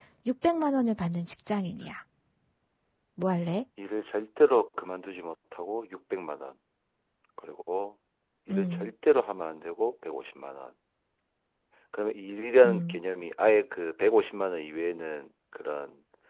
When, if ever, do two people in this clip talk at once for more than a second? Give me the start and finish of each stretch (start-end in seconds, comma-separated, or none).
none